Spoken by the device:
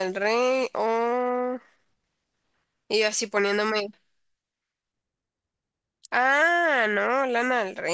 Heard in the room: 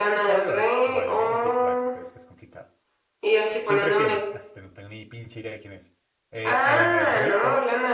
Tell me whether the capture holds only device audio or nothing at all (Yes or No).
No